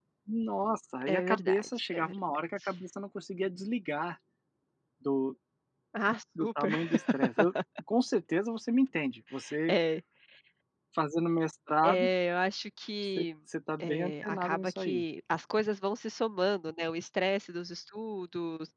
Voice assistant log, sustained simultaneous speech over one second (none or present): present